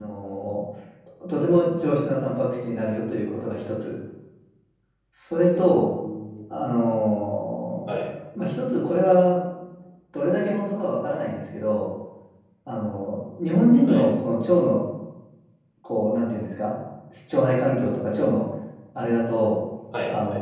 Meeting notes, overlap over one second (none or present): none